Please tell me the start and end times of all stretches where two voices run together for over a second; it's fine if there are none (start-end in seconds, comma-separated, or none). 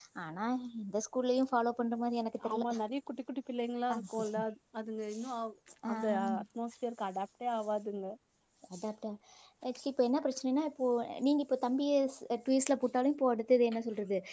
none